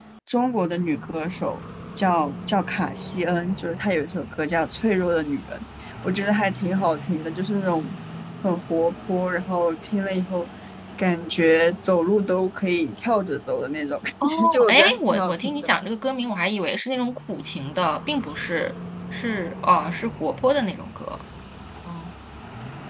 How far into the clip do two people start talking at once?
14.2 s

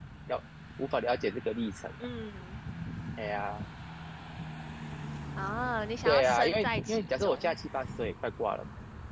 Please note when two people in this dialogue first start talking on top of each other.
6.0 s

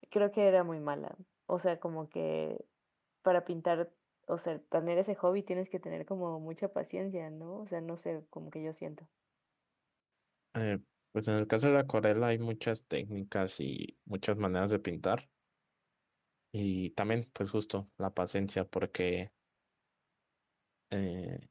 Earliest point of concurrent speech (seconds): none

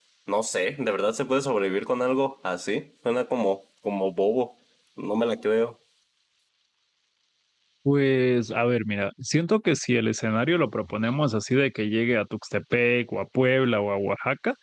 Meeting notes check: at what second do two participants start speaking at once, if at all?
none

